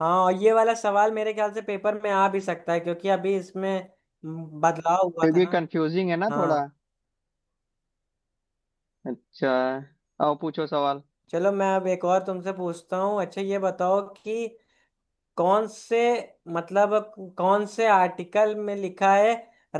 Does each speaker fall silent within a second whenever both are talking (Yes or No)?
Yes